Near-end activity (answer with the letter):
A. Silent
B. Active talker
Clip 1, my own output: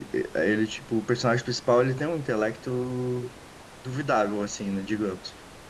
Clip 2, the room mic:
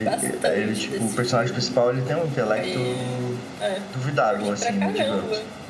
B